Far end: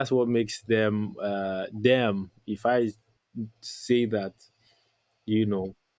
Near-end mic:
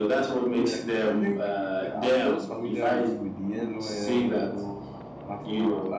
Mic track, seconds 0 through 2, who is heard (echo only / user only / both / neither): both